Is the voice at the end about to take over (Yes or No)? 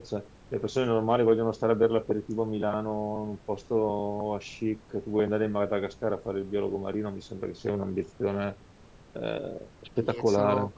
Yes